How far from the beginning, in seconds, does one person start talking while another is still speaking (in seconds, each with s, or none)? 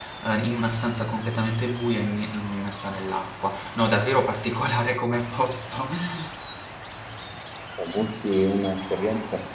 none